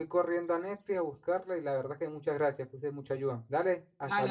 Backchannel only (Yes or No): No